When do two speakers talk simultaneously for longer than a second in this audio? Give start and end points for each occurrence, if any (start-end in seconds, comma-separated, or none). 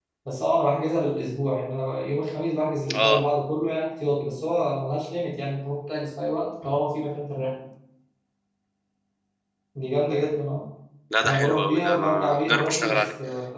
11.2-13.1